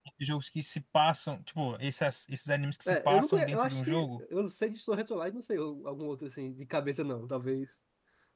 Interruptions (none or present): present